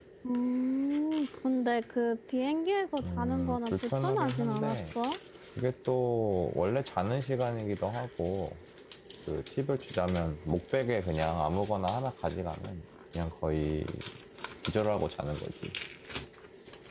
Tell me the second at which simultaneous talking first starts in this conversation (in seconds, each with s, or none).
3.0 s